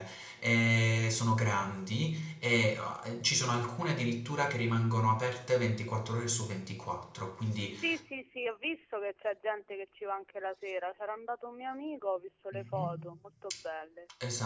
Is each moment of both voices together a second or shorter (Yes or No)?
Yes